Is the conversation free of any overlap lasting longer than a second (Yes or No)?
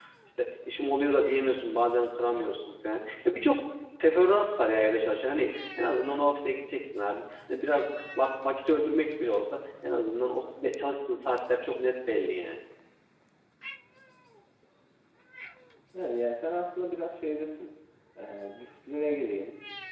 Yes